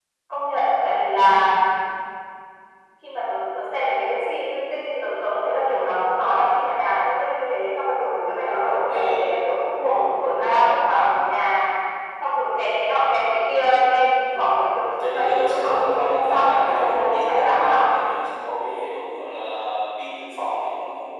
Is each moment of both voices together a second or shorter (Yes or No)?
No